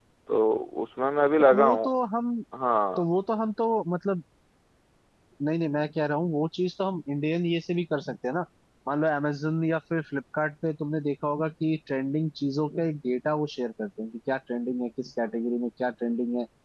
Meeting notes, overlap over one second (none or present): none